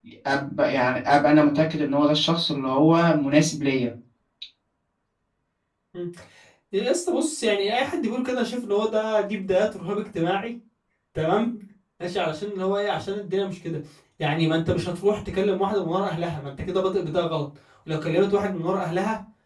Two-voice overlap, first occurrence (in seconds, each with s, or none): none